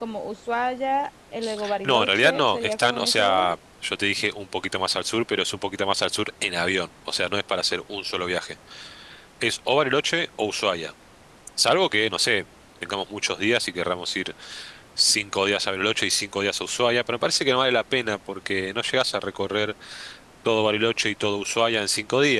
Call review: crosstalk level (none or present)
present